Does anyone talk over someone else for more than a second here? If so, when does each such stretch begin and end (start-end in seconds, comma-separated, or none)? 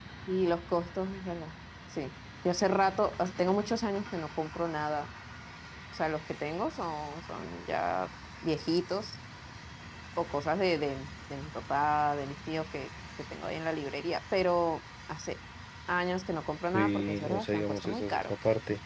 16.7-18.3